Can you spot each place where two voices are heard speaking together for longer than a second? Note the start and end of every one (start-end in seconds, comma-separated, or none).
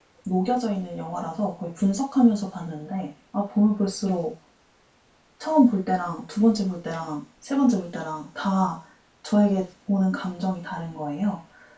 none